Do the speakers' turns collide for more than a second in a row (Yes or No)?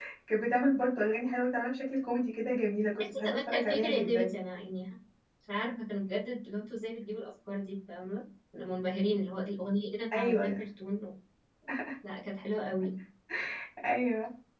Yes